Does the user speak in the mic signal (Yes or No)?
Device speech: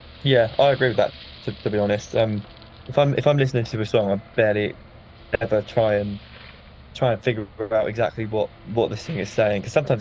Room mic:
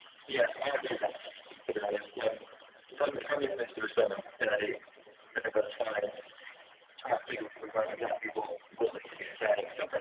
No